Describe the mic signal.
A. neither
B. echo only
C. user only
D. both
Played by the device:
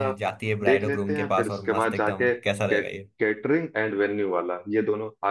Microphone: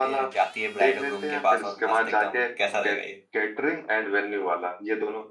B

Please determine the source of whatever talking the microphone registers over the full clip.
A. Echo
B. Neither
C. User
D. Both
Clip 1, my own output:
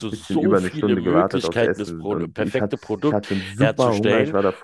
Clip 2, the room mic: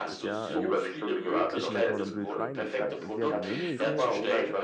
D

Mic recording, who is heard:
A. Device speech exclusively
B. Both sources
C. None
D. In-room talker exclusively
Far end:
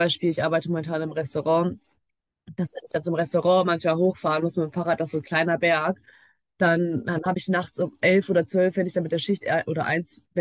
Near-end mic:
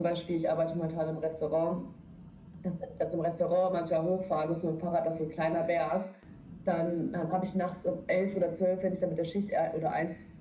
A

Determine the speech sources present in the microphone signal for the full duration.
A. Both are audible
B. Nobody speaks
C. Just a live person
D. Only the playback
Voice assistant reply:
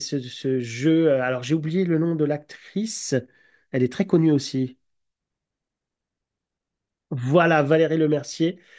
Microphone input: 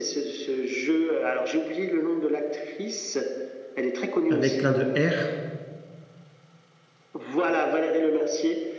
A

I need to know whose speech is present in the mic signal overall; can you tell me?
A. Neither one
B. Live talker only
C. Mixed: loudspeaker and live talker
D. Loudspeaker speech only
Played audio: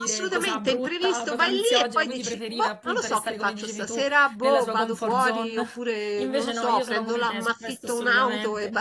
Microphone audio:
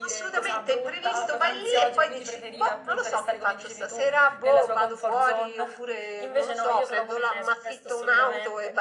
D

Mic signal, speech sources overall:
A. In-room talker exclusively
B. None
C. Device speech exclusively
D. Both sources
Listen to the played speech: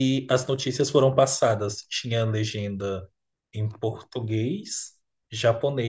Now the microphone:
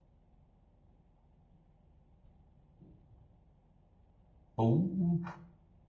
A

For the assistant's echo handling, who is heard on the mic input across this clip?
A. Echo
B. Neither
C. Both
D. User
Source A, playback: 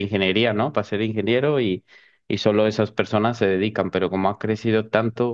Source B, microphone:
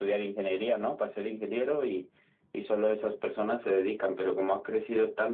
A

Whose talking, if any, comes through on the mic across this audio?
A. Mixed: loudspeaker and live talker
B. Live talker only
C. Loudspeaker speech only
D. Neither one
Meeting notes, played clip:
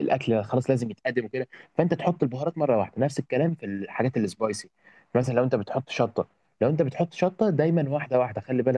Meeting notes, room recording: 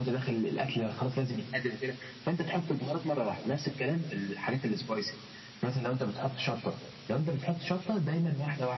C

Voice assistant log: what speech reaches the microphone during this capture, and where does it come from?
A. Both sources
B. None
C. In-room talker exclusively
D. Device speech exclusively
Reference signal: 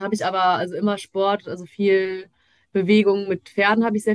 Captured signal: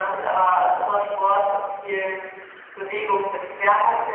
D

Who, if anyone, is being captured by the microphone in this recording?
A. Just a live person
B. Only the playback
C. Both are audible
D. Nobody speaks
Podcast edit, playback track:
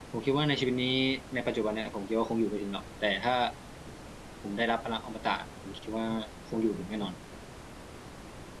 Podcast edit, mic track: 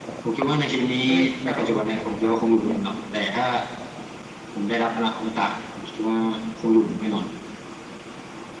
C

